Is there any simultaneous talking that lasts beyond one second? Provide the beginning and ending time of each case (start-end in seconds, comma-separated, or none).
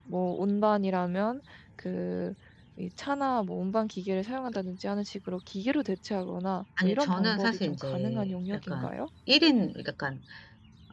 6.8-8.9